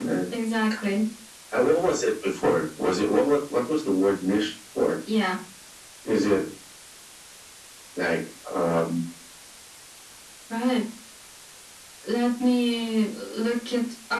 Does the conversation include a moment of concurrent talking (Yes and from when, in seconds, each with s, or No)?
No